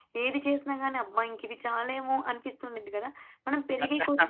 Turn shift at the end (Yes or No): No